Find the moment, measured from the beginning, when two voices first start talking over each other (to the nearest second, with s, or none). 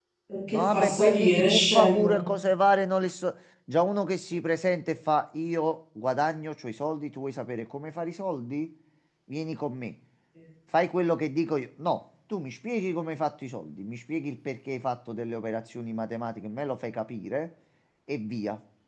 1 s